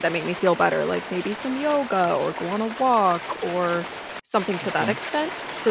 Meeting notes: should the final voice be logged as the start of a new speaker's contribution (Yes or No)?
No